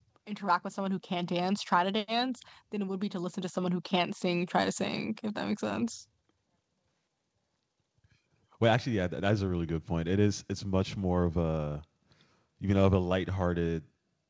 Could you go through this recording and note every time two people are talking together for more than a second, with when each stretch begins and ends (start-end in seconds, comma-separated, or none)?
none